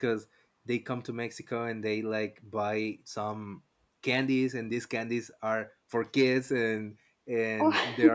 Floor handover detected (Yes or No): No